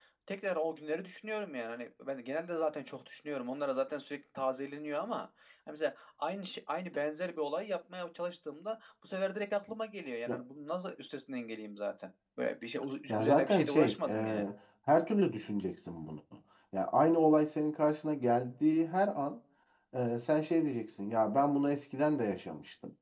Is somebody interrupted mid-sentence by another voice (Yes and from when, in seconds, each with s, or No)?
Yes, from 13.1 s